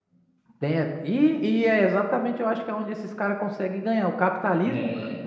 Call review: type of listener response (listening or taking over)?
listening